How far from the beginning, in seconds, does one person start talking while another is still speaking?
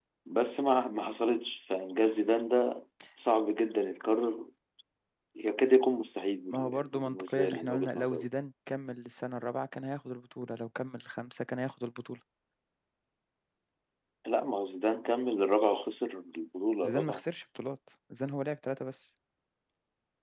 6.5 s

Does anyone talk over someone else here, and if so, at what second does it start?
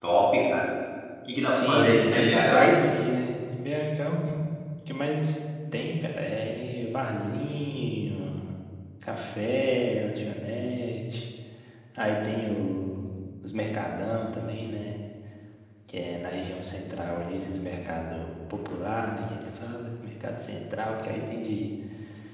1.5 s

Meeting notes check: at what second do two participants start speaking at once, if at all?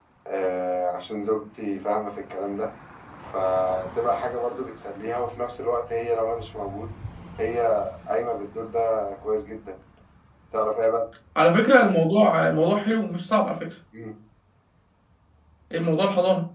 none

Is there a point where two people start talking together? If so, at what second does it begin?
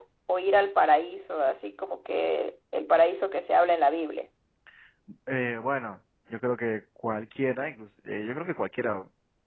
none

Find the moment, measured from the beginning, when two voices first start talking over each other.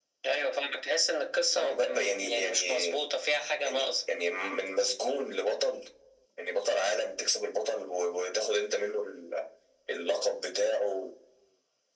1.6 s

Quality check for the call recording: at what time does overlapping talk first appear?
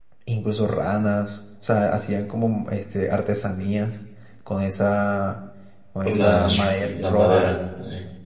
6.0 s

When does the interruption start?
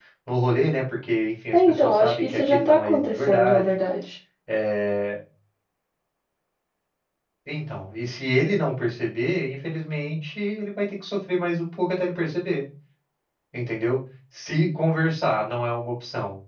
1.5 s

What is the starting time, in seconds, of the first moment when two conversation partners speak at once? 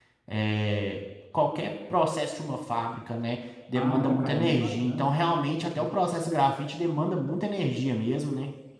3.8 s

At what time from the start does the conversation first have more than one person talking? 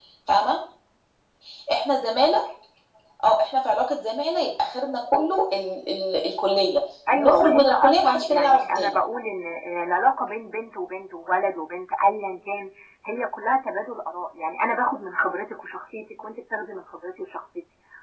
7.1 s

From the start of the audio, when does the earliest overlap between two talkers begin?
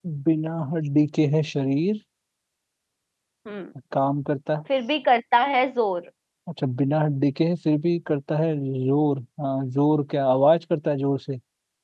none

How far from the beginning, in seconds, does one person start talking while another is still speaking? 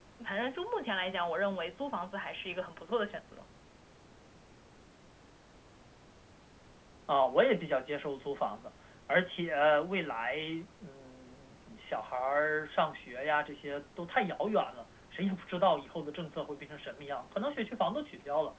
none

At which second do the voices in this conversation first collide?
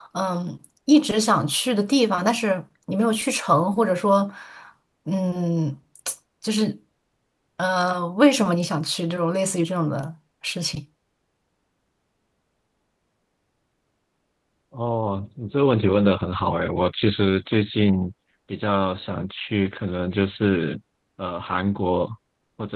none

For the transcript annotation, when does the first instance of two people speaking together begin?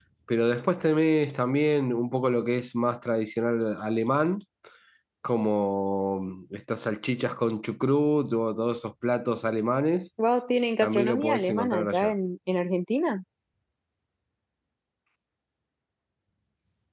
10.8 s

